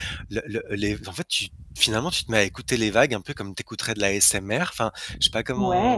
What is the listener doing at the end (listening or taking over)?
taking over